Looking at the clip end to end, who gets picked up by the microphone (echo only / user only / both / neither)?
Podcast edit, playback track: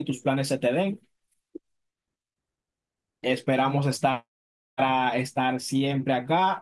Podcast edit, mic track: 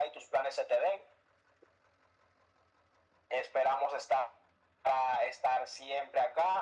echo only